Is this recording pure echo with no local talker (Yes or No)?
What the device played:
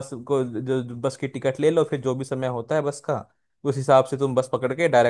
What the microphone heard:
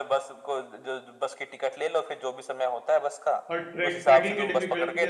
No